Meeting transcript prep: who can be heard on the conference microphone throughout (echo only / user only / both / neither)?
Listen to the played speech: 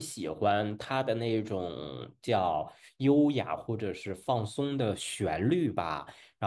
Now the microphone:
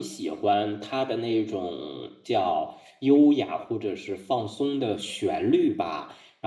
echo only